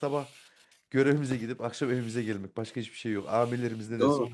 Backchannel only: No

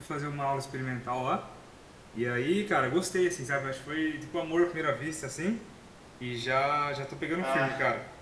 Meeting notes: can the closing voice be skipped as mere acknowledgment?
Yes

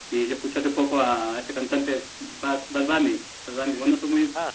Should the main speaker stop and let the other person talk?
No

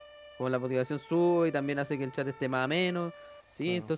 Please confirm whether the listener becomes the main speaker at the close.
No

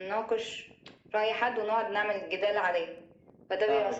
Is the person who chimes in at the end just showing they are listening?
No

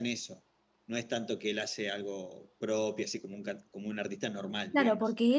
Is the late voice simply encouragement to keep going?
No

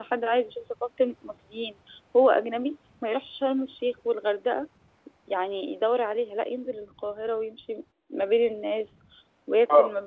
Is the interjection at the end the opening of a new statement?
Yes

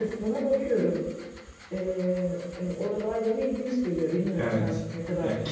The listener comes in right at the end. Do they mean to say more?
Yes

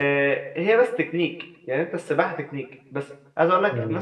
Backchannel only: Yes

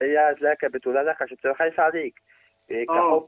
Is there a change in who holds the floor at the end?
No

